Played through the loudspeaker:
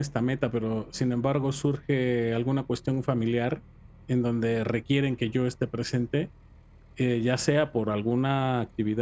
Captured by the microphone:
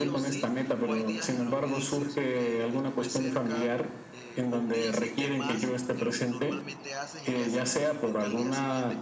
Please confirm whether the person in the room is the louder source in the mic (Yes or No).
No